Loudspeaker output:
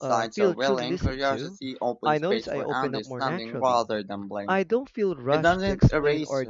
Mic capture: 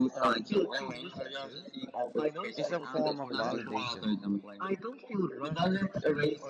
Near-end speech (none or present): present